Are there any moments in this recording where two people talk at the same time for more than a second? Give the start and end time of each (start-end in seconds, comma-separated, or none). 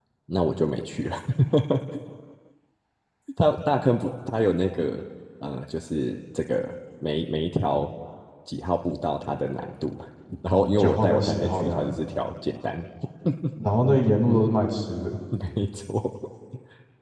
10.5-11.9